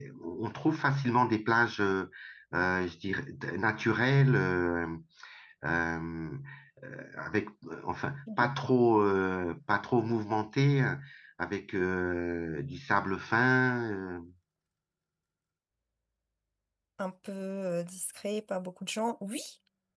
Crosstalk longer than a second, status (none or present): none